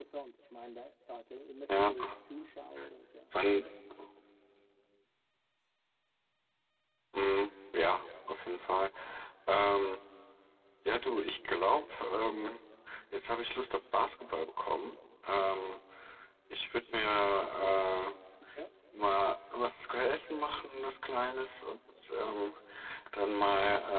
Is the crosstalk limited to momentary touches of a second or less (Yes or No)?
Yes